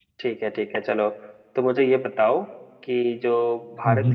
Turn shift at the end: No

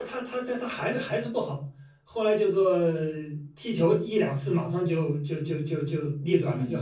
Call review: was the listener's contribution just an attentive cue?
No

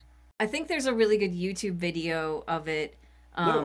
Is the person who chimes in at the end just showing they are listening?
No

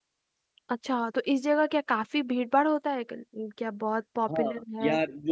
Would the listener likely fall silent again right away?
No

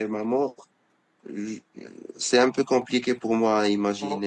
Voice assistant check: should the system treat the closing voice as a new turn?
Yes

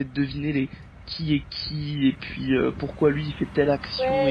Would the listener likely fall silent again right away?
No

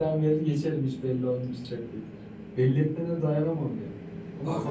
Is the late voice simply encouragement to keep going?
Yes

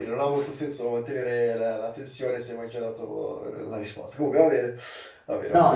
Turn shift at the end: Yes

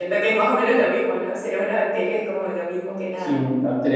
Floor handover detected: Yes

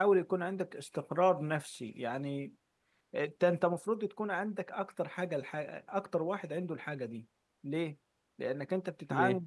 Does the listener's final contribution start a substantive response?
No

